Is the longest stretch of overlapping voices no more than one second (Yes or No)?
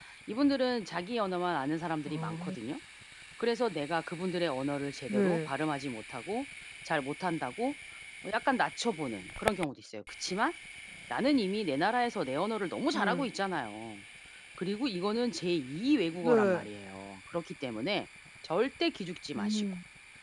Yes